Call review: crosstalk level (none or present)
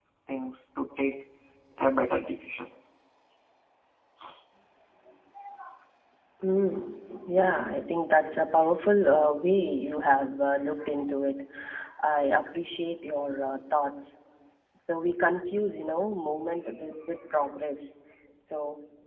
none